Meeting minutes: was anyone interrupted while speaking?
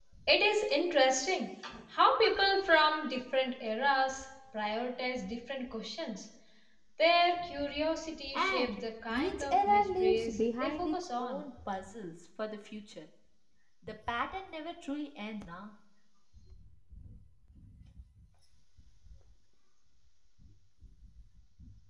Yes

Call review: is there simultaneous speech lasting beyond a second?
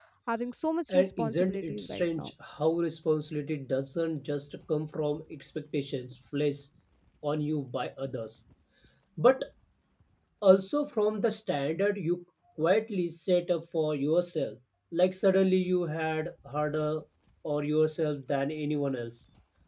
Yes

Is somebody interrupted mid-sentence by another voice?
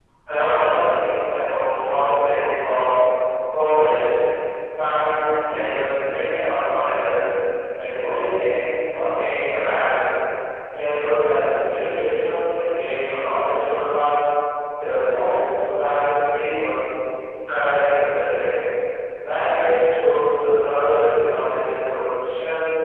No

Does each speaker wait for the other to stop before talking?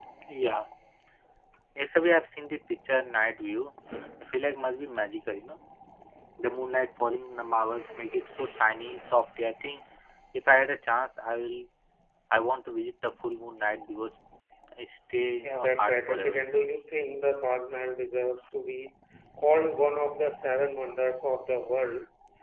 No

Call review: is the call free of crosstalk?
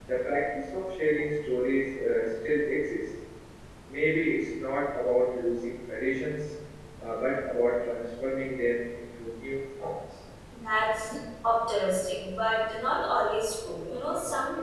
Yes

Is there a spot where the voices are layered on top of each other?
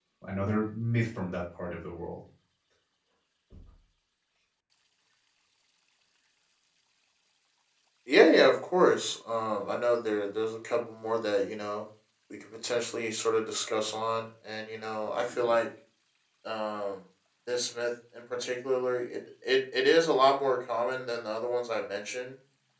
No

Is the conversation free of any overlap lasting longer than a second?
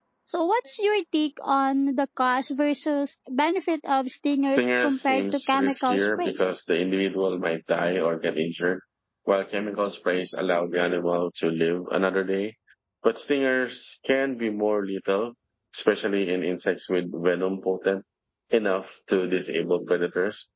No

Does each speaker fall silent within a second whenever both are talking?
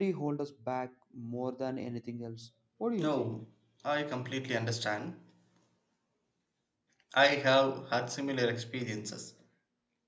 Yes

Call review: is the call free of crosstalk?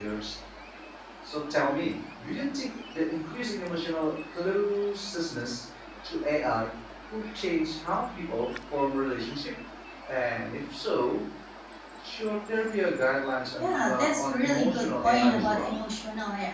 No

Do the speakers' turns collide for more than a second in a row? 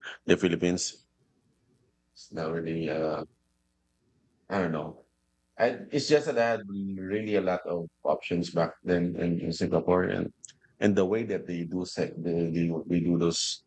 No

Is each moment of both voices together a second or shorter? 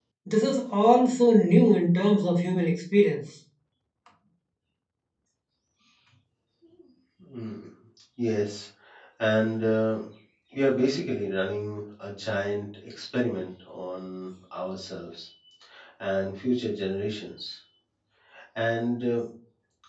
Yes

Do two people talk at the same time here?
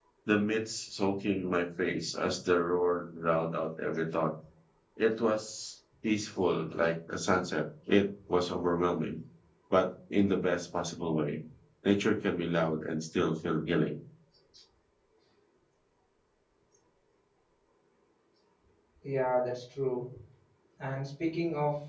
No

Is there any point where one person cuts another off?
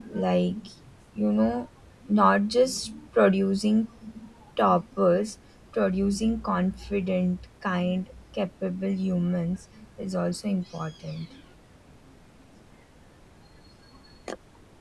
No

